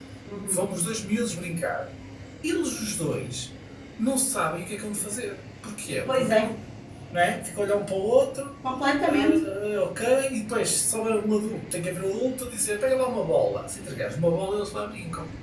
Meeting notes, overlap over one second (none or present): none